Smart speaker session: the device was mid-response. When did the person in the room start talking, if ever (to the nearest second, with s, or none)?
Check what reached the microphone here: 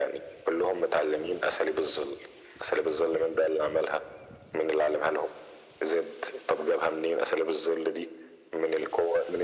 none